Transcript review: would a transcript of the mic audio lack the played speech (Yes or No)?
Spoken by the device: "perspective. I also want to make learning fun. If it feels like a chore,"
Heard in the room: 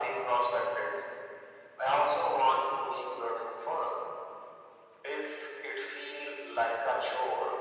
No